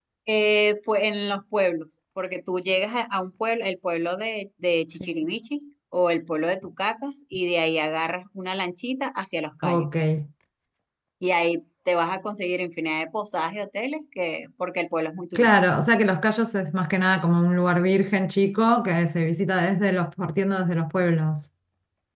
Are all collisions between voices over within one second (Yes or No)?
Yes